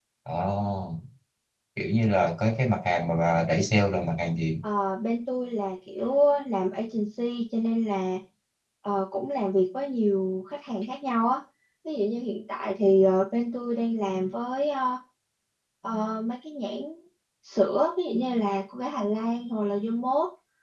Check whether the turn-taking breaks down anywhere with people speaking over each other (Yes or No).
No